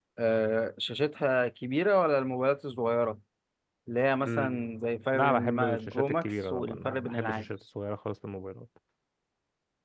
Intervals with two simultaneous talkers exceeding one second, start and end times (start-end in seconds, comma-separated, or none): 5.1-7.5